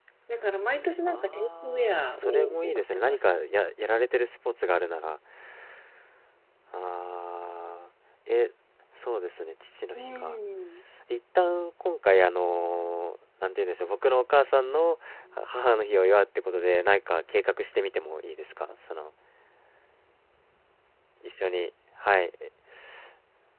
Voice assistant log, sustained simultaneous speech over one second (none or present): present